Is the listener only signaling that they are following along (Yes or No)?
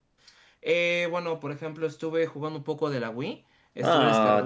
No